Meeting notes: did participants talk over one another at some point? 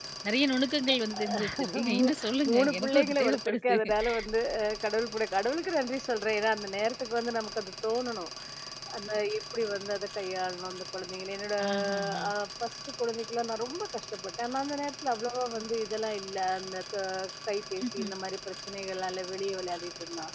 Yes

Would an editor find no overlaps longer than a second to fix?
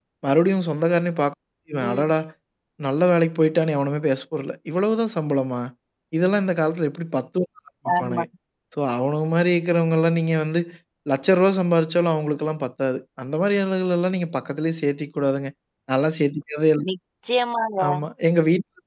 Yes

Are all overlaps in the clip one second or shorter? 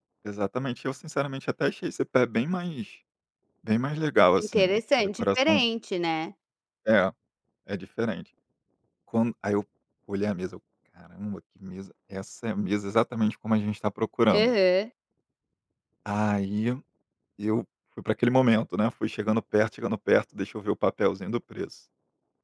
No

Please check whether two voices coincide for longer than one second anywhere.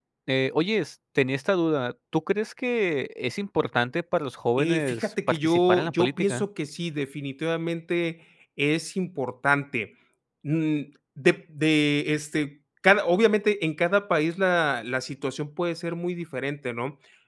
Yes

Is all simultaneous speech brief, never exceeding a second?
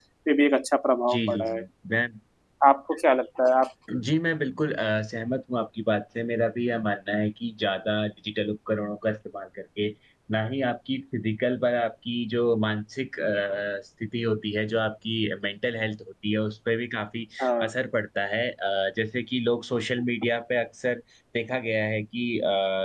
Yes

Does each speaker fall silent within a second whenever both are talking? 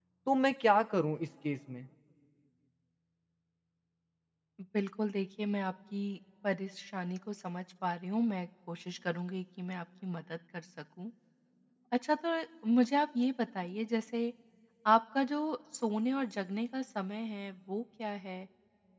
Yes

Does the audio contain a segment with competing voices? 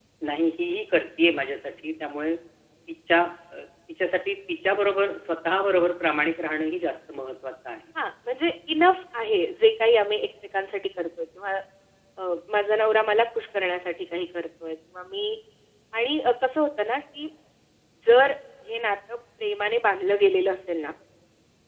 No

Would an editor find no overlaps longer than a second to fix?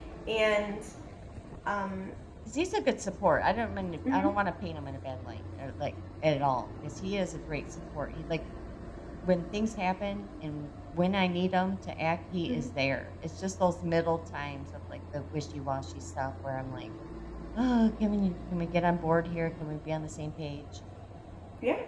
Yes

